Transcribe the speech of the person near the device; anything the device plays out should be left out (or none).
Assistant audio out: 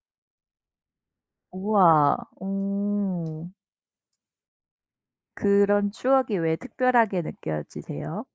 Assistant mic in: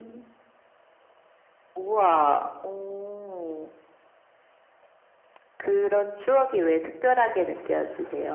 none